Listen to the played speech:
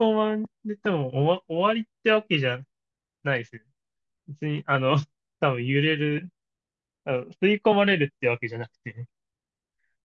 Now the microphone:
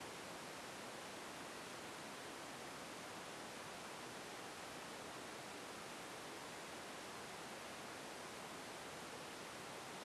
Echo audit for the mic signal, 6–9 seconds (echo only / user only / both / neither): neither